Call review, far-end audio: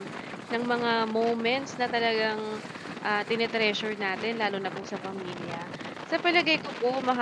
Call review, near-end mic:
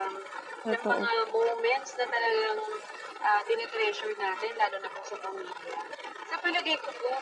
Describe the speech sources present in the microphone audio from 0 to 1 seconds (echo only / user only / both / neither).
both